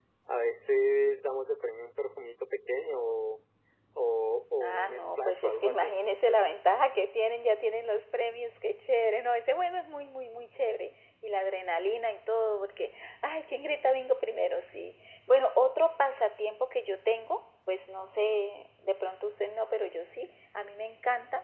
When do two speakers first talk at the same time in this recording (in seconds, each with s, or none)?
4.6 s